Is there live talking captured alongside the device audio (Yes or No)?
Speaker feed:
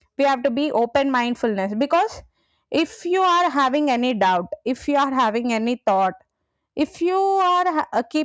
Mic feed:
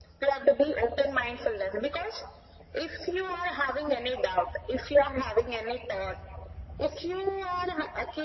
No